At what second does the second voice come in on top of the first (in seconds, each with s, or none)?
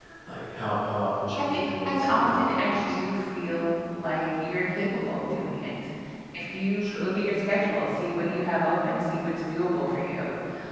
1.4 s